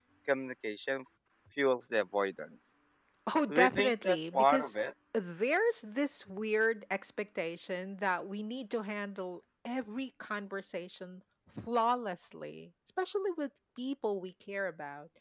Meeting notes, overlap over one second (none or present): present